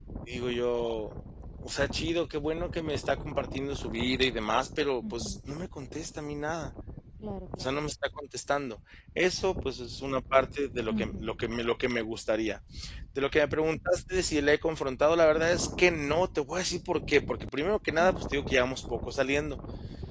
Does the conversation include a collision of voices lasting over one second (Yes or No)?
No